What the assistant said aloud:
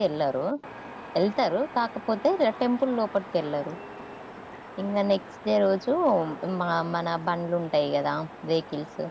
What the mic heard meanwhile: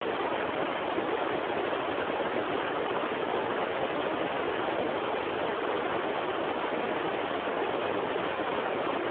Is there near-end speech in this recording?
No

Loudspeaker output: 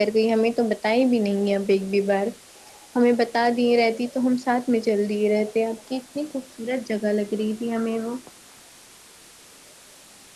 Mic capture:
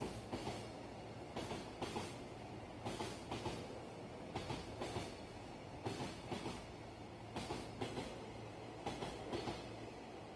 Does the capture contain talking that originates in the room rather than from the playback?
No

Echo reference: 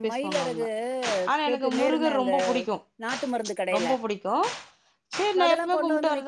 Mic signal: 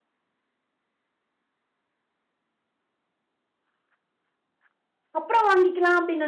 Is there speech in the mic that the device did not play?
Yes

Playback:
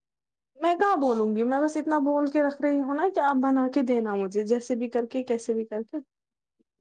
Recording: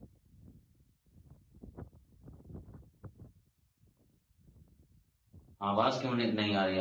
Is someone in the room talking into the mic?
Yes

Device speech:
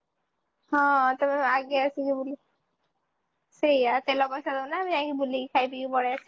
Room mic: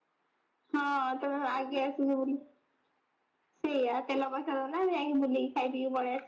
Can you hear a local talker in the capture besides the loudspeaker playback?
No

